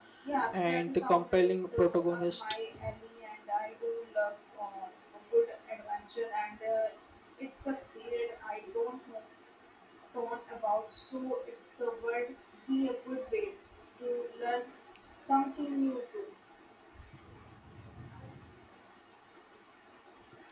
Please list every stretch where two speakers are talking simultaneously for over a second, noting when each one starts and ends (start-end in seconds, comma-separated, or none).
0.5-2.4